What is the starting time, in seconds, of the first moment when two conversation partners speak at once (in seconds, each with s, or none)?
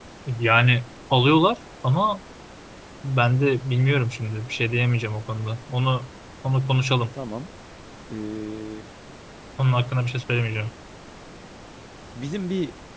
none